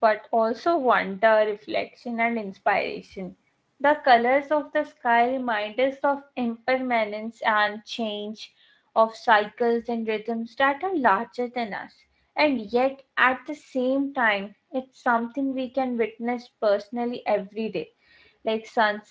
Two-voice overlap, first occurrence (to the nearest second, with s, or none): none